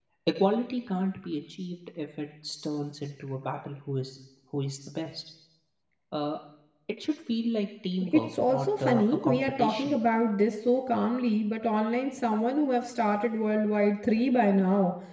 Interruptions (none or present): present